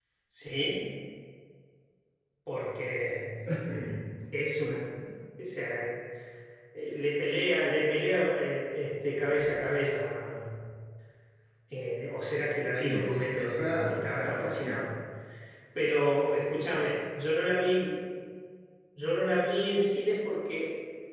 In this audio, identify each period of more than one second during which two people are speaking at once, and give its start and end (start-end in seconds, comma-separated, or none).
12.8-14.7